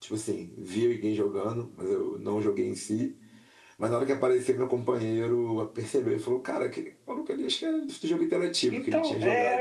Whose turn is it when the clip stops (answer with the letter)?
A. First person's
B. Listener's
B